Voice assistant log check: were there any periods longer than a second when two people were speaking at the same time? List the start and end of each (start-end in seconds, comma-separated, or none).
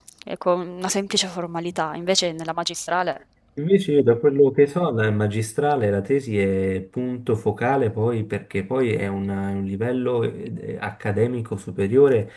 none